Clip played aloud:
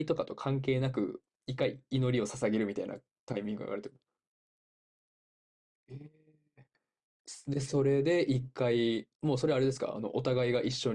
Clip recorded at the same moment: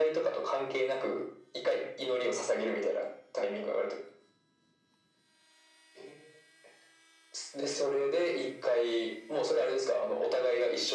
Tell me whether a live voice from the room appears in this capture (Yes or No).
No